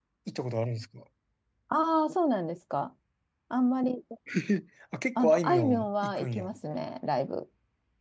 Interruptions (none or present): present